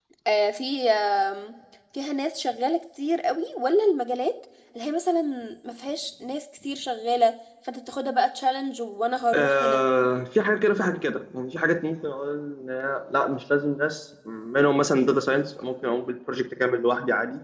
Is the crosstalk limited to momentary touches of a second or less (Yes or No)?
Yes